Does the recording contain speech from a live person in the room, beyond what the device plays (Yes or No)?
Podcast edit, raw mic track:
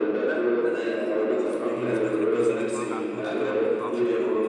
Yes